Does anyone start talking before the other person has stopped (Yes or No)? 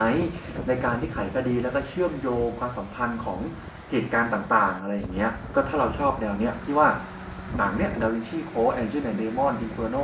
No